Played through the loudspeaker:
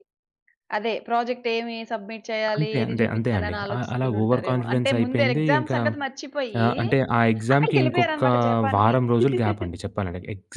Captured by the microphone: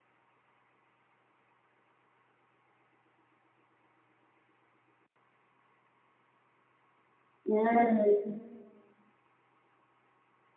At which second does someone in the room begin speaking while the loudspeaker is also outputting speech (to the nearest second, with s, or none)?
7 s